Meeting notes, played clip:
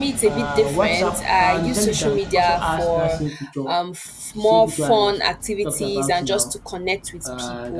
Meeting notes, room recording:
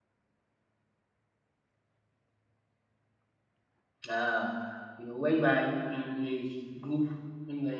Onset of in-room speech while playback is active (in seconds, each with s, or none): 4.1 s